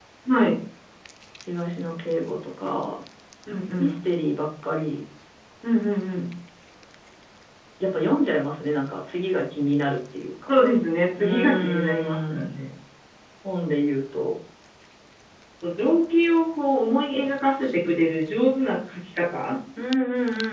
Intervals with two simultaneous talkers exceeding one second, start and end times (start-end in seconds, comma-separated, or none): 11.2-12.5